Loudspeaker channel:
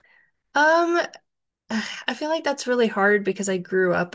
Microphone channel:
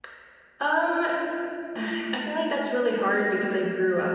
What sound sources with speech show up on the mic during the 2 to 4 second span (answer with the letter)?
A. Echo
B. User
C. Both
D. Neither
A